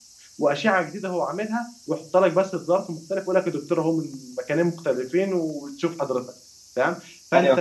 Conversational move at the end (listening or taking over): listening